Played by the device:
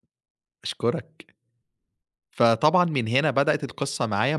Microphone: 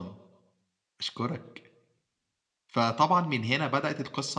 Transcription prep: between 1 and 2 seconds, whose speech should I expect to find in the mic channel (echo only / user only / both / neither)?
echo only